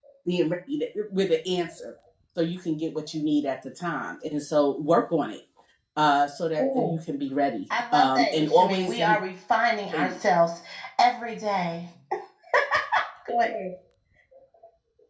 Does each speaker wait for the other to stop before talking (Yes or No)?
No